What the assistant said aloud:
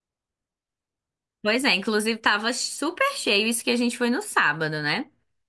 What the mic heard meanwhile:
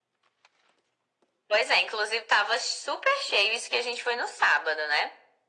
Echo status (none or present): present